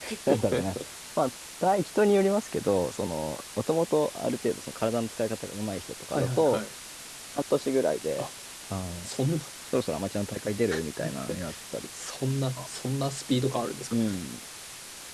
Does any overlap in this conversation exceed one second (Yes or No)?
No